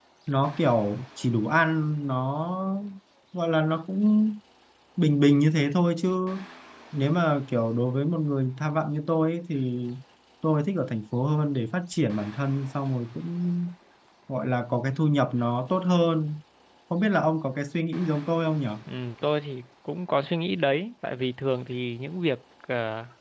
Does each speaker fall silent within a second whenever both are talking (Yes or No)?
Yes